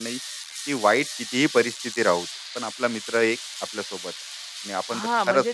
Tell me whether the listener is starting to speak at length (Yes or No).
Yes